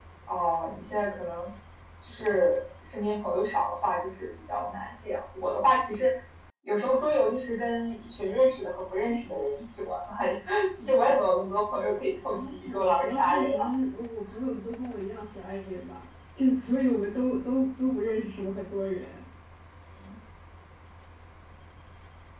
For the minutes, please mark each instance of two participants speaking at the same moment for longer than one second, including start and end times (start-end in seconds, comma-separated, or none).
12.2-13.7